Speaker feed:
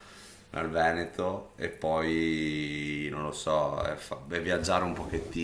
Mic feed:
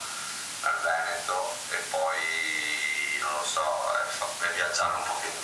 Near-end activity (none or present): none